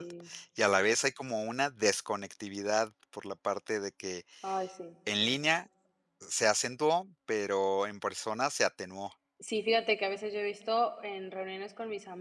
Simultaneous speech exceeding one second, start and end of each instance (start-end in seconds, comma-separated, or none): none